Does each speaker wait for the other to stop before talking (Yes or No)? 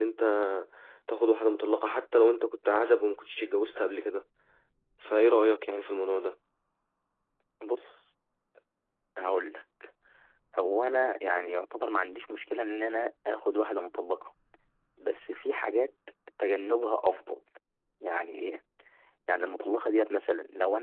Yes